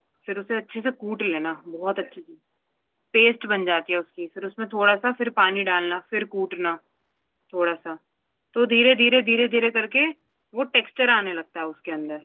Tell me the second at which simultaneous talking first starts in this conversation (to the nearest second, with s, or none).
none